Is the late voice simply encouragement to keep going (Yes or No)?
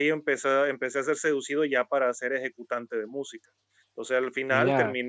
Yes